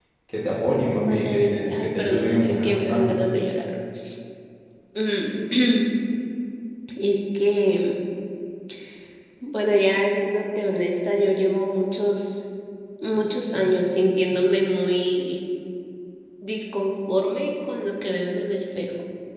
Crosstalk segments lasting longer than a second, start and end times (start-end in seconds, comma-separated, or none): 1.1-3.1